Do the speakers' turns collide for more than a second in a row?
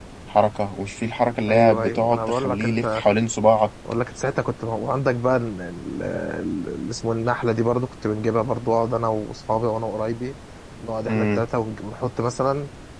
Yes, from 1.5 s

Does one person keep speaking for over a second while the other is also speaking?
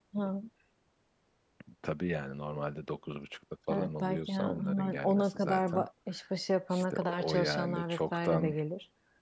Yes, from 3.7 s

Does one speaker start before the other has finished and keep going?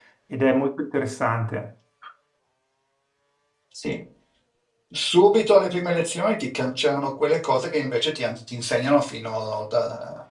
No

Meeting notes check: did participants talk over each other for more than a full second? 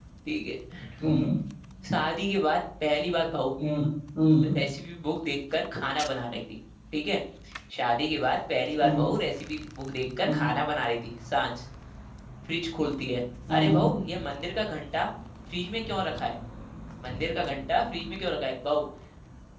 No

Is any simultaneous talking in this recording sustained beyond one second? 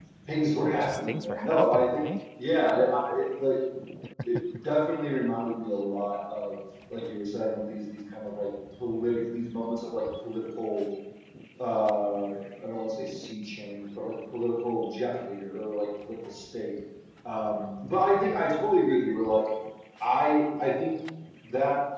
Yes, from 0.8 s

